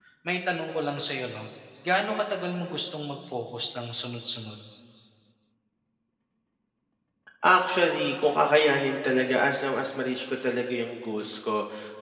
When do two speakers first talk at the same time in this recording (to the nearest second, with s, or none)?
none